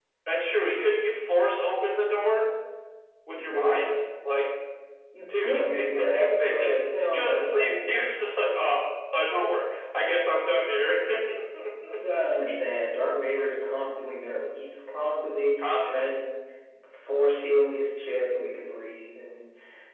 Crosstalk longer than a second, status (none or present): present